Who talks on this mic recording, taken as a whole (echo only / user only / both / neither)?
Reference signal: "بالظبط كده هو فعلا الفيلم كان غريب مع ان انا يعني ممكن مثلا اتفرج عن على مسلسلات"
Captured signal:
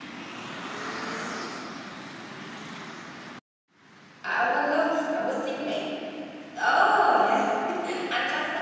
user only